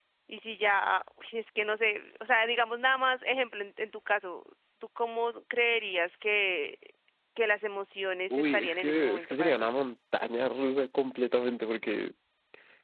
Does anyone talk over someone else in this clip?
Yes, from 8.3 s

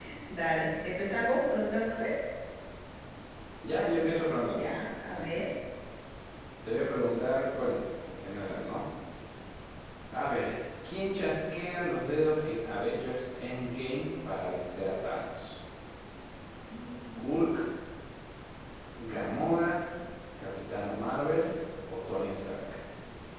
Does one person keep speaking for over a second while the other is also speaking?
No

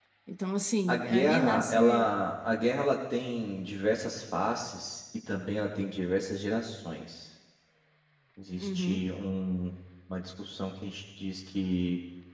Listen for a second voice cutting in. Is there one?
Yes, from 0.9 s

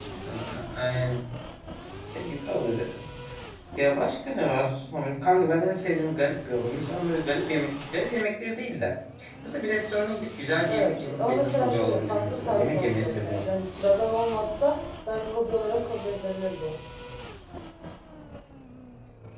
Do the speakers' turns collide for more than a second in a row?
Yes, from 10.7 s

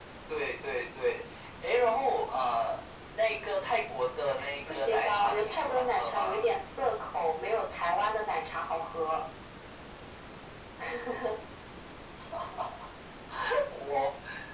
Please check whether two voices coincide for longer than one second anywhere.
Yes, from 4.7 s

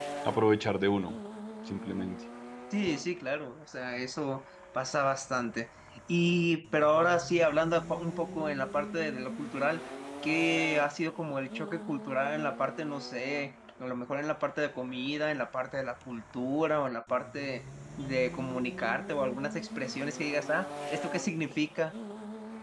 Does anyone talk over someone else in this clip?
No

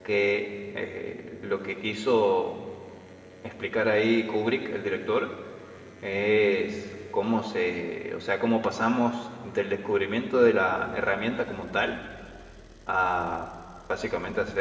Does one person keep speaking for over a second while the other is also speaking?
No

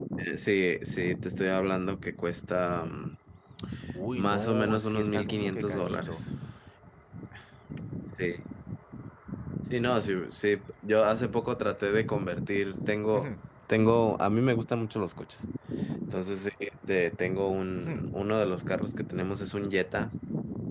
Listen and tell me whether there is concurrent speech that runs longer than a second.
Yes, from 4.2 s

